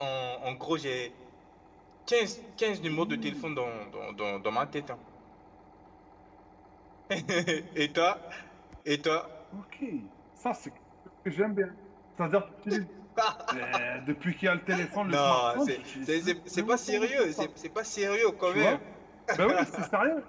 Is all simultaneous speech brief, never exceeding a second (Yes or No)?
No